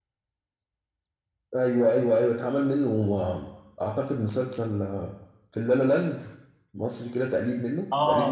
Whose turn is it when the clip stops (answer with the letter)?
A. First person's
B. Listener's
B